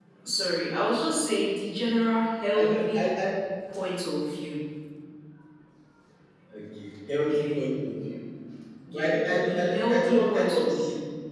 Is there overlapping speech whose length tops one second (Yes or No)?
Yes